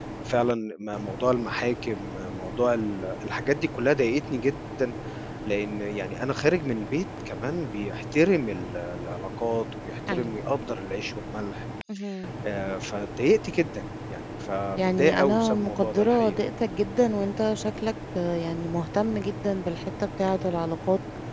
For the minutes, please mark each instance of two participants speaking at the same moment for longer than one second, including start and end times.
14.8-16.4

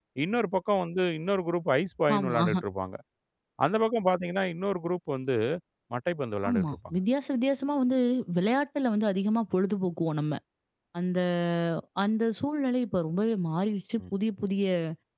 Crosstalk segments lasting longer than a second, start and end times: none

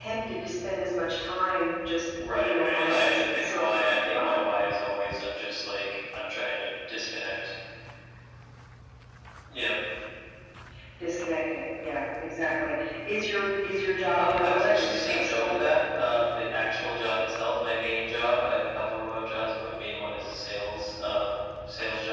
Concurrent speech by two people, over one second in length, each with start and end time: 2.4-4.4, 14.1-15.6

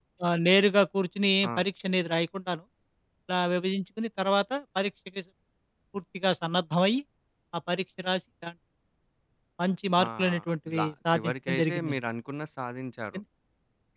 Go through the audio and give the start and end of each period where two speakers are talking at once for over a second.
10.8-11.9

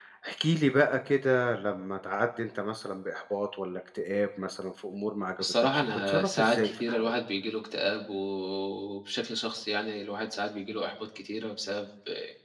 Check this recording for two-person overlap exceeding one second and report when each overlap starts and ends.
5.4-7.1

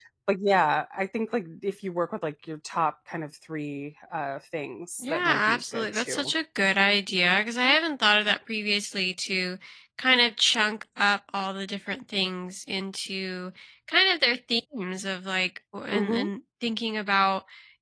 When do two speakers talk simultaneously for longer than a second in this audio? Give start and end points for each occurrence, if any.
5.0-6.3

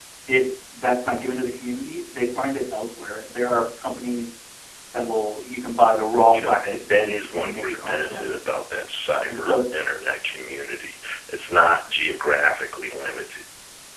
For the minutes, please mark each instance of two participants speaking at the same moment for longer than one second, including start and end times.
6.3-8.4

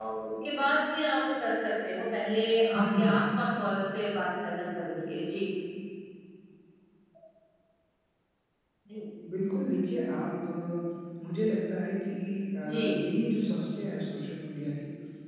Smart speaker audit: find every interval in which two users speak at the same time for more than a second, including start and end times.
none

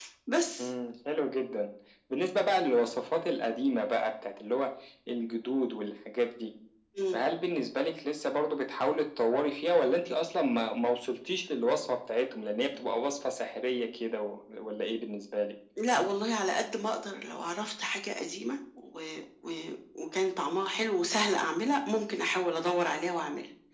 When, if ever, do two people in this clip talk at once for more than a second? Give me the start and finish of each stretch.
none

